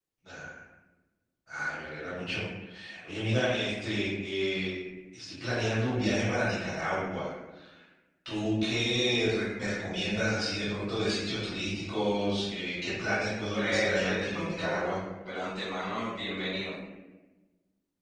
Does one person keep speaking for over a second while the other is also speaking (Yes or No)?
Yes